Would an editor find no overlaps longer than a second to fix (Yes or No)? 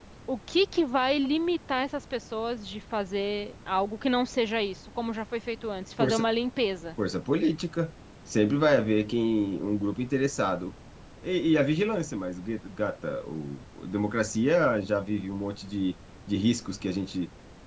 Yes